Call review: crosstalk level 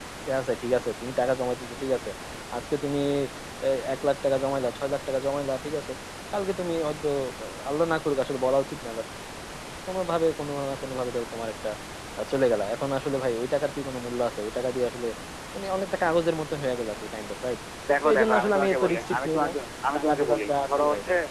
present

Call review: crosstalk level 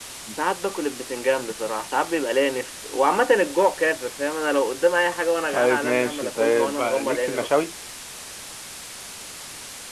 present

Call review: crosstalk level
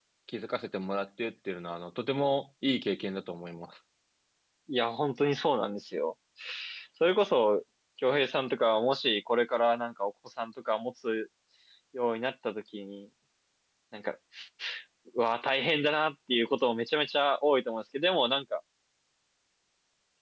none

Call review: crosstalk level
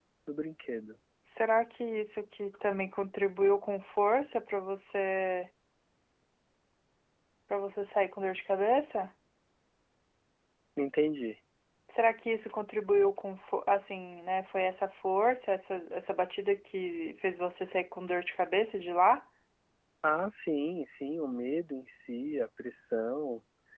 none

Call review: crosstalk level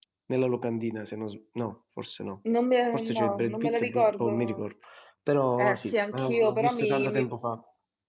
present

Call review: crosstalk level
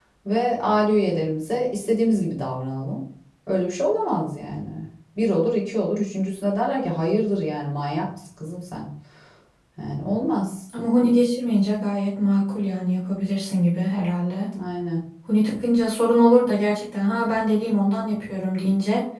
none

